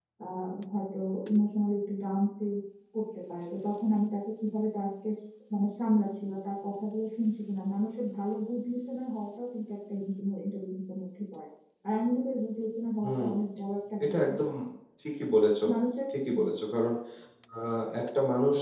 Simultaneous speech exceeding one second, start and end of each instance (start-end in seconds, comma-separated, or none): none